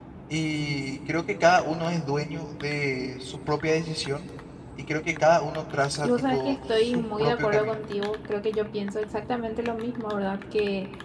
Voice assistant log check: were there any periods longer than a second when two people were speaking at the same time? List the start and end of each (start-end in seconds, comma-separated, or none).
6.0-7.8